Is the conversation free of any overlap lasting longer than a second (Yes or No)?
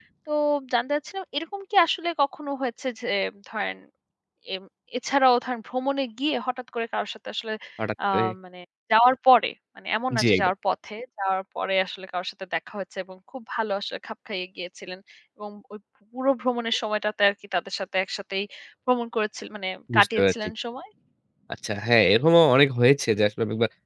Yes